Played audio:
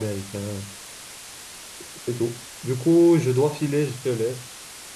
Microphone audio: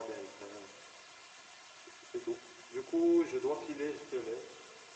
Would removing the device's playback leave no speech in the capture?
Yes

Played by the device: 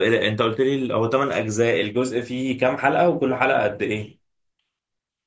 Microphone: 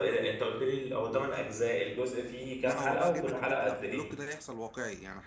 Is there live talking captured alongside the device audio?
Yes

